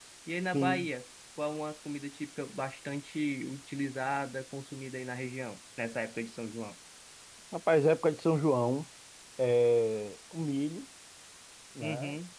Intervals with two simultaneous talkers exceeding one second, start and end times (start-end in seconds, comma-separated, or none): none